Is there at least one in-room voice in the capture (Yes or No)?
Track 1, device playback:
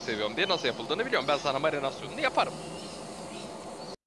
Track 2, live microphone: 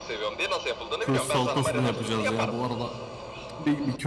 Yes